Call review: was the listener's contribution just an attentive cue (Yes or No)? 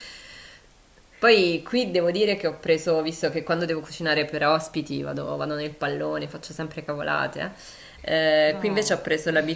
Yes